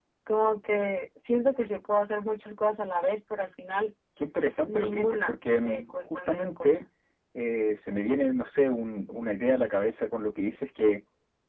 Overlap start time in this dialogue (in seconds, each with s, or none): 4.6 s